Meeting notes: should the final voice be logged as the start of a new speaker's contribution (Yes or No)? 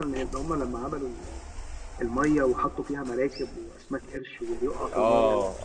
Yes